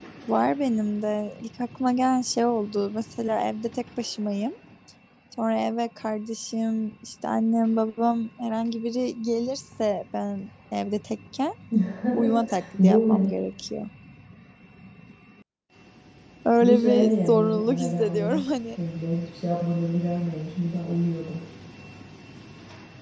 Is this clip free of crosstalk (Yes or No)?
No